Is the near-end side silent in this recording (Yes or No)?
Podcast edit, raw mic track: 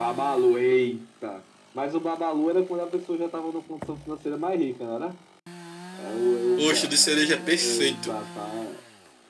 No